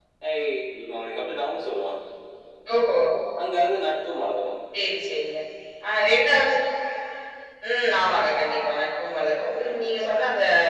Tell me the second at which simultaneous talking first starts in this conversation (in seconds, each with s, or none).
none